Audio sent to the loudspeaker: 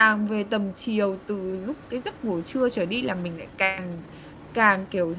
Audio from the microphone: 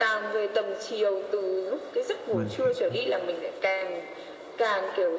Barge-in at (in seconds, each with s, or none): 2.3 s